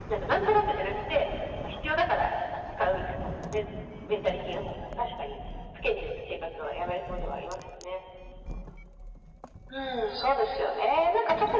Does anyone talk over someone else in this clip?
No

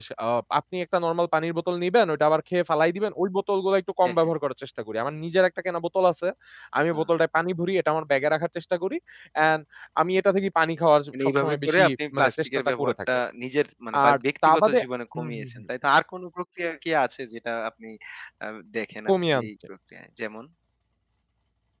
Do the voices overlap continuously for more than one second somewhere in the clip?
Yes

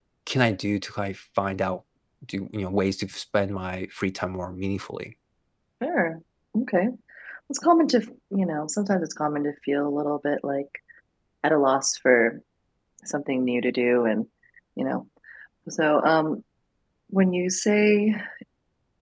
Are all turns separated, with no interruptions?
Yes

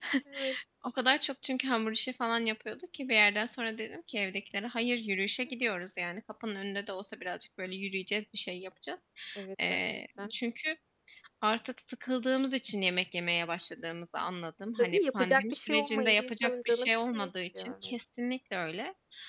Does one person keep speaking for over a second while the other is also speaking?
Yes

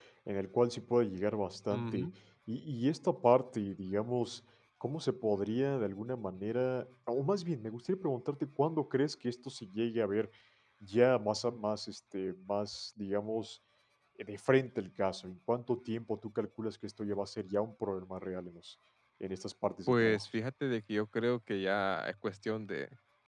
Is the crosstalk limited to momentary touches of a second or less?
Yes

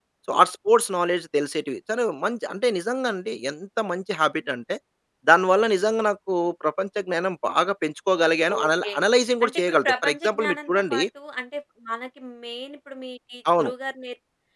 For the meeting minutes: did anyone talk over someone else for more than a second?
Yes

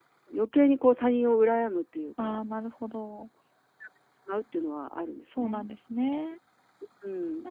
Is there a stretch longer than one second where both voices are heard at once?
No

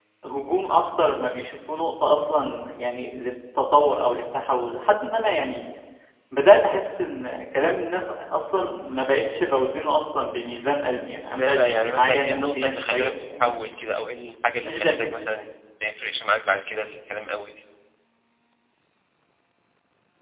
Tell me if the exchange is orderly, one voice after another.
No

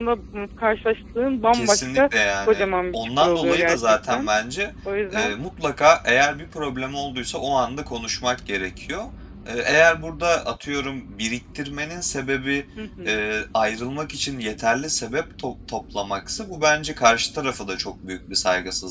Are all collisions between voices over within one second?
No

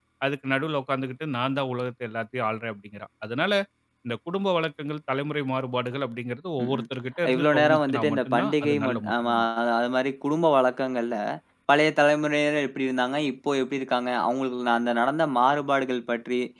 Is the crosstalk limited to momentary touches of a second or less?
No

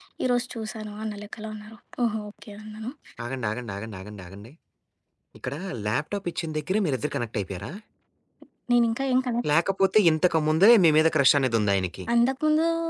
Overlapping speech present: No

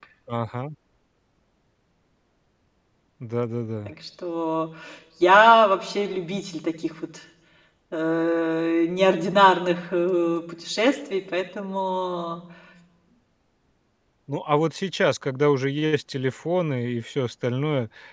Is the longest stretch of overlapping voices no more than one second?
Yes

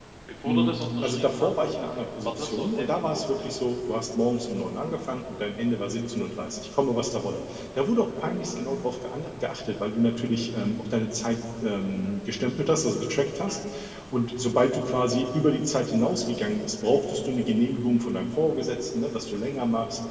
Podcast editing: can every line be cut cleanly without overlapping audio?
No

